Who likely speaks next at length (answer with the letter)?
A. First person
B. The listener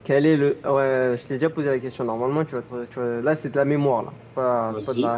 A